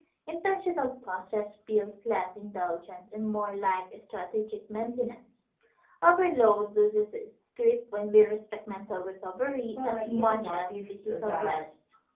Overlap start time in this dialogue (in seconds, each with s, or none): 9.8 s